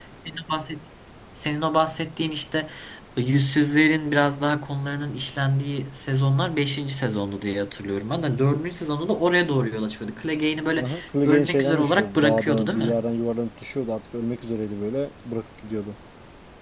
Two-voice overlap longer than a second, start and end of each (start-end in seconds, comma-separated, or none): 11.2-12.9